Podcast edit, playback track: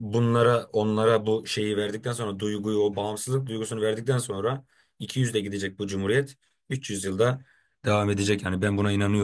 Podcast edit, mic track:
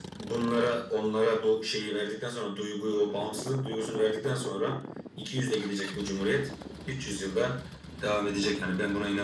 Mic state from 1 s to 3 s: echo only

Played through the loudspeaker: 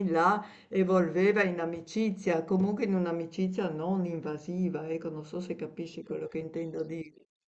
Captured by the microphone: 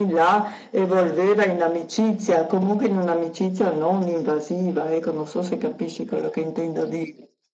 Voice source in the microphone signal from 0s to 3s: echo only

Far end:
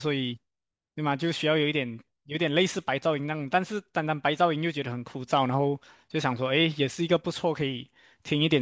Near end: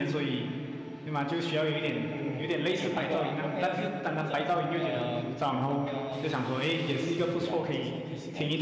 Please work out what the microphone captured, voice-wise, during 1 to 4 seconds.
both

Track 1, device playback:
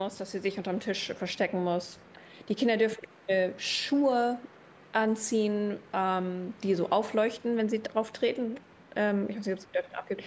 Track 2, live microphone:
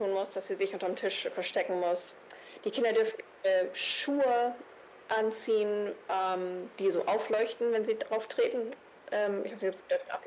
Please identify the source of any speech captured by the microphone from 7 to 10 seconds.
echo only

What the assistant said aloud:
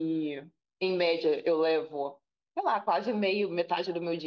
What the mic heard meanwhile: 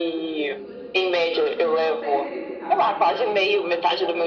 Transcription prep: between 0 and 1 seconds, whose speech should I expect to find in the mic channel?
both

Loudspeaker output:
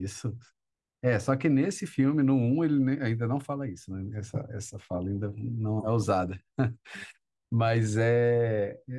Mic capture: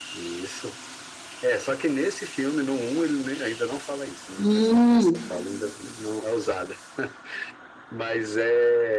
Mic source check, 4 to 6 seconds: both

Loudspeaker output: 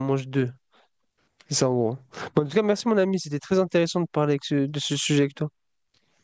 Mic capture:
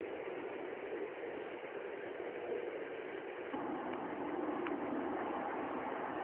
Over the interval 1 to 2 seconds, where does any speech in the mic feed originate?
neither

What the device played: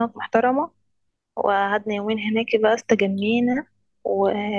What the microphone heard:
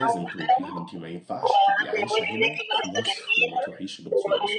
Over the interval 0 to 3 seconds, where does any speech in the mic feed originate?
both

